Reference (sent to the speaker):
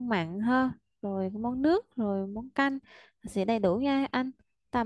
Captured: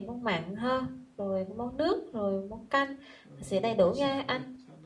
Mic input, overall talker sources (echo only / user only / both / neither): both